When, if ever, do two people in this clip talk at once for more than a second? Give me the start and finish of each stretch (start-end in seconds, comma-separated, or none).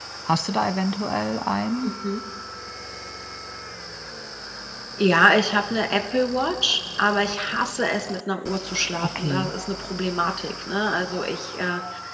none